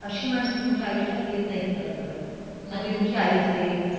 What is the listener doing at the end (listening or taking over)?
listening